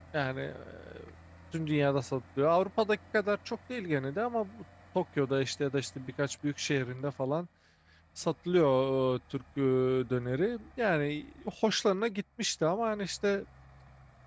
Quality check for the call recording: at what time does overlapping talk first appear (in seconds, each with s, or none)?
none